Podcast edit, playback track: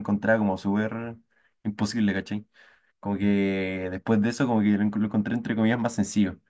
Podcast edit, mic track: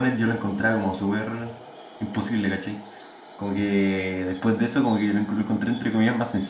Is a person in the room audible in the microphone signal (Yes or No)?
No